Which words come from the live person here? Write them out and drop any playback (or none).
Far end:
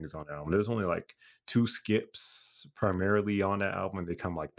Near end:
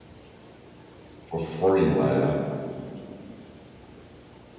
for free, man,